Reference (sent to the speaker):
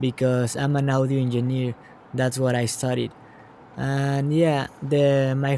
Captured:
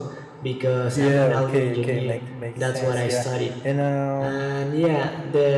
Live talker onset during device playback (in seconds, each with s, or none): 0.9 s